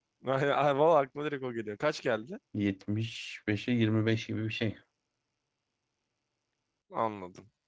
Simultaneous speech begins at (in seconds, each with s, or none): none